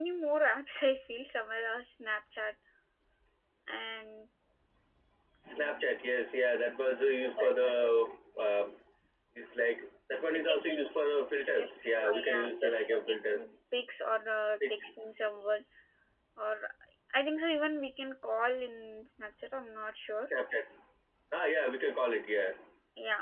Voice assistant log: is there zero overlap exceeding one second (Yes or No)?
No